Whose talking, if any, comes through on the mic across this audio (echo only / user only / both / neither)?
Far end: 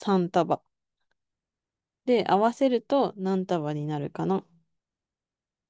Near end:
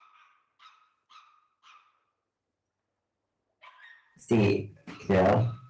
user only